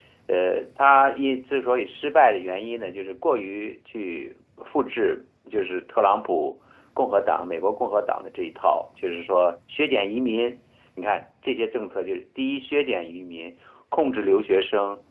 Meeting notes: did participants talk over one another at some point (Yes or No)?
No